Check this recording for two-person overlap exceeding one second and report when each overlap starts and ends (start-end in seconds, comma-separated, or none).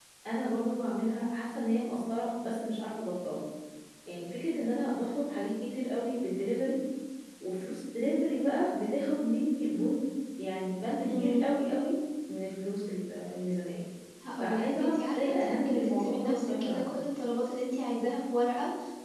14.4-16.9